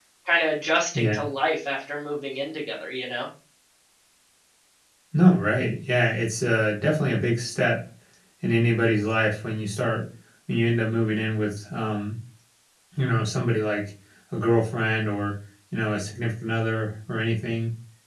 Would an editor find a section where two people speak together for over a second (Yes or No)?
No